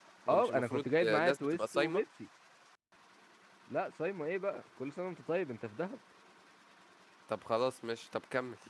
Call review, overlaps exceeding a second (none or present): present